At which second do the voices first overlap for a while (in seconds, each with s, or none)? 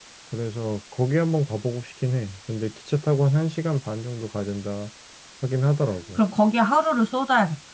none